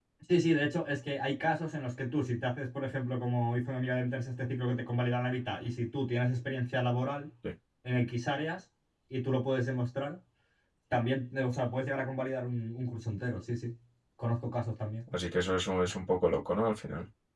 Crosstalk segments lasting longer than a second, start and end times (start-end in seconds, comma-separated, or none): none